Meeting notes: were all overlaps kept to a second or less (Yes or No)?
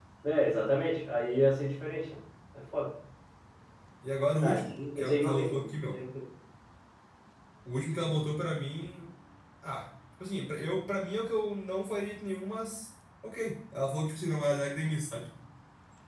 No